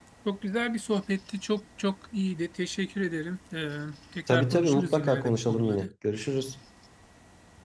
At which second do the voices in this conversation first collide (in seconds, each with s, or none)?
4.3 s